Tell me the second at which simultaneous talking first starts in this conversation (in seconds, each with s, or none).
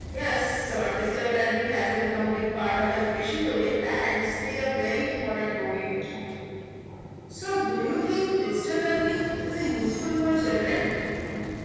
none